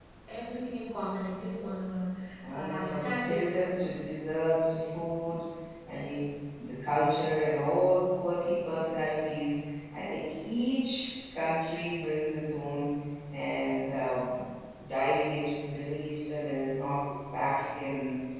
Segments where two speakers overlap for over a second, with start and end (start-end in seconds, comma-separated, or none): 2.5-4.0